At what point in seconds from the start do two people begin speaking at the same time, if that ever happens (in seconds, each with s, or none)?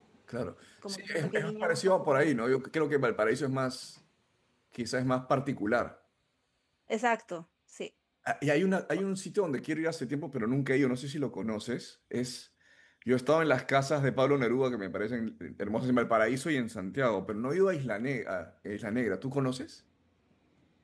0.9 s